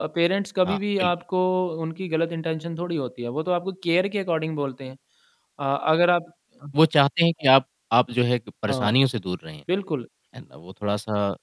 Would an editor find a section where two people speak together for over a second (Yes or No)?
No